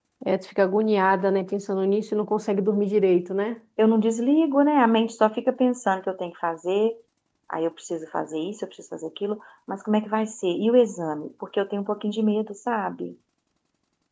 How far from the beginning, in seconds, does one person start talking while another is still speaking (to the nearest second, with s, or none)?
none